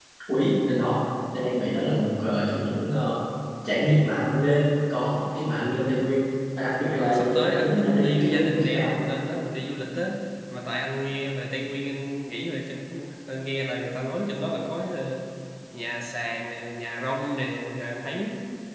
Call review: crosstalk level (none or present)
present